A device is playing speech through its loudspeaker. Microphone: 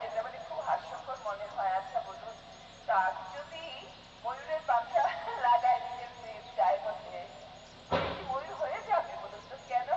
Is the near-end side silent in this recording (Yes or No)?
Yes